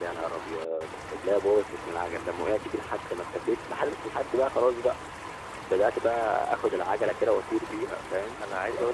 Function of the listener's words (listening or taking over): taking over